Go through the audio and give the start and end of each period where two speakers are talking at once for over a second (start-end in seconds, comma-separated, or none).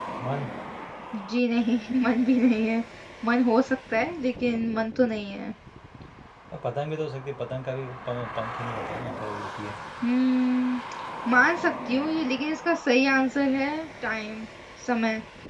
none